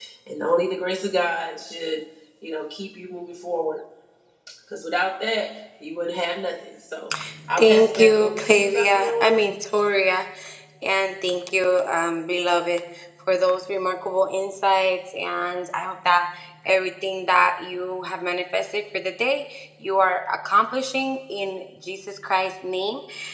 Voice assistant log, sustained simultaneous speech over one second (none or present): present